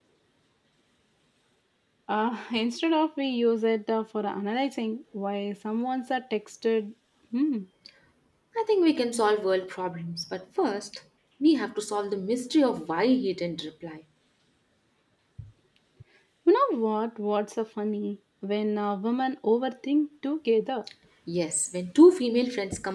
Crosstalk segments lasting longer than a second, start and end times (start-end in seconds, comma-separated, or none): none